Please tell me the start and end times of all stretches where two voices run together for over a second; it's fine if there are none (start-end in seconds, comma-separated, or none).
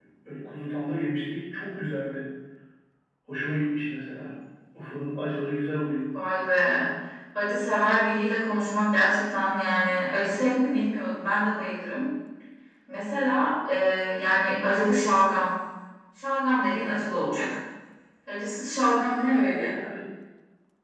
none